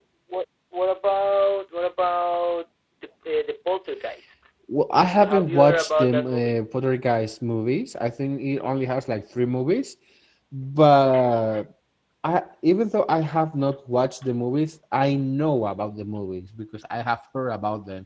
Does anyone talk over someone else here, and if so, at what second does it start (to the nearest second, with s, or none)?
5 s